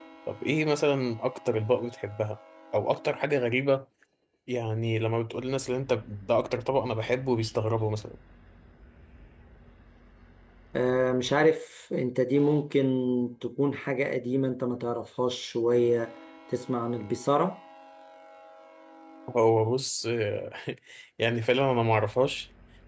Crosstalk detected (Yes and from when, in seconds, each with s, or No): No